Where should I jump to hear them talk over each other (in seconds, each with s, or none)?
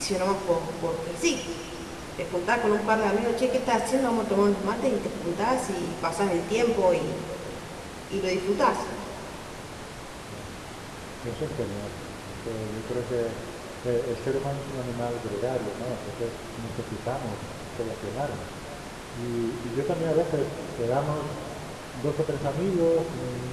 none